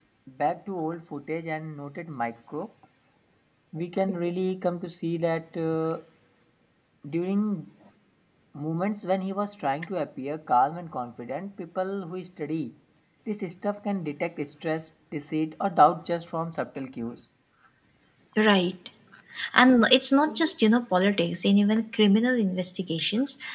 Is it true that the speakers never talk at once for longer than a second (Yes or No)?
Yes